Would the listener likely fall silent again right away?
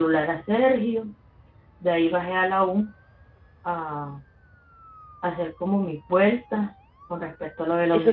No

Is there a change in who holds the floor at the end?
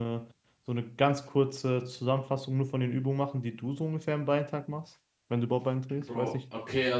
Yes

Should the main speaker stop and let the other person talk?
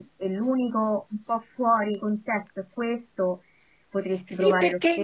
Yes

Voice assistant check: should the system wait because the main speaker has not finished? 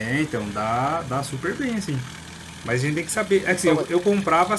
Yes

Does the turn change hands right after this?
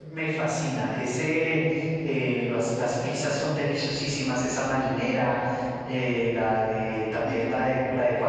No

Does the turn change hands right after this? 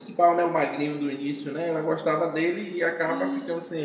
Yes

